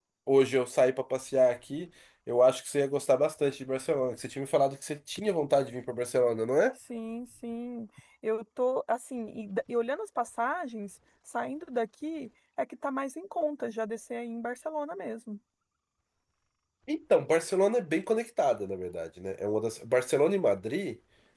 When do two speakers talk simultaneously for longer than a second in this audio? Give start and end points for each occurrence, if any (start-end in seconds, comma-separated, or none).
none